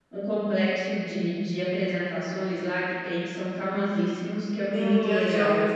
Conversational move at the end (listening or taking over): taking over